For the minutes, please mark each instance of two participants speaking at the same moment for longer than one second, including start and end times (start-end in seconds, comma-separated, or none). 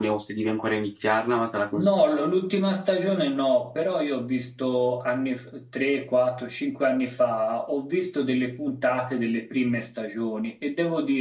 none